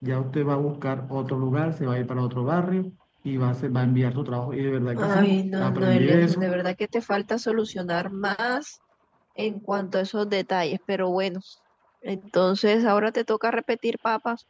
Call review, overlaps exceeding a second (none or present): present